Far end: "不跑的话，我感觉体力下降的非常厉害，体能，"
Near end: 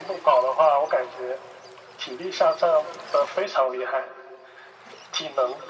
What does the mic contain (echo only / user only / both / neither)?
echo only